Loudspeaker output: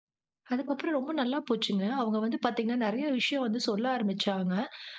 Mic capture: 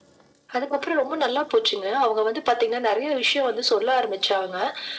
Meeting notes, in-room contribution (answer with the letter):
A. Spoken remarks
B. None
B